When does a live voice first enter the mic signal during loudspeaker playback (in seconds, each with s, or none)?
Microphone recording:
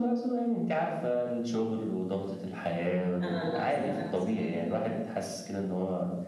3.2 s